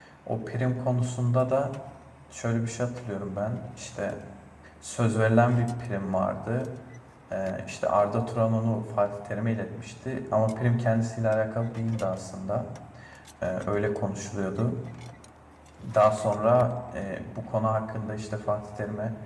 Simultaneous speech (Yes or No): No